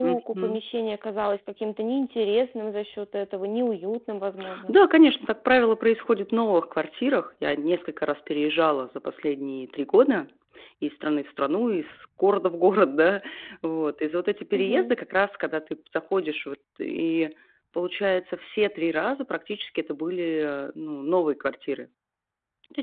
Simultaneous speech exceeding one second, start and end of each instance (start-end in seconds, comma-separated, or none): none